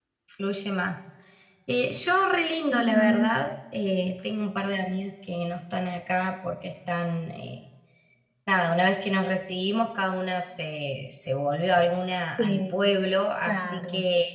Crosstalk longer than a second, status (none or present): none